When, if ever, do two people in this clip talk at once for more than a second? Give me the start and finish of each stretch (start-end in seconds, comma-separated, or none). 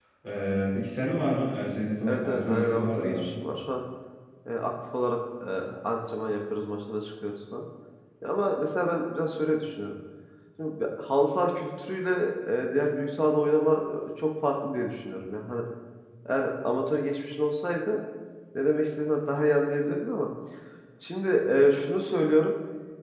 2.1-3.3